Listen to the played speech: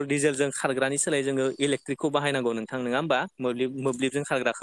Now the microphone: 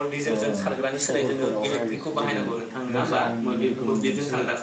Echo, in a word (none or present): present